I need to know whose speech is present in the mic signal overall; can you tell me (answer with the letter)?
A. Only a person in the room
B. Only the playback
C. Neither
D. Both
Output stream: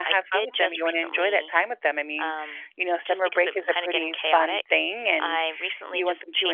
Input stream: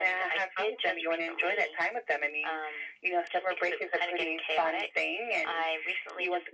B